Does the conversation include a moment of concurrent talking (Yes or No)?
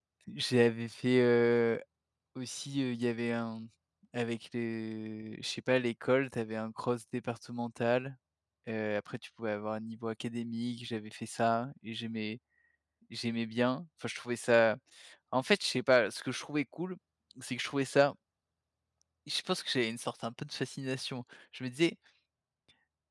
No